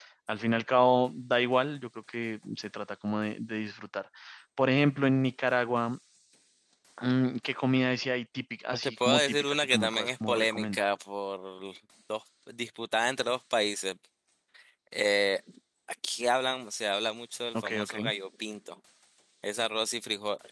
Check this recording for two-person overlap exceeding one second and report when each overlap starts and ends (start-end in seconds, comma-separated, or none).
8.7-10.8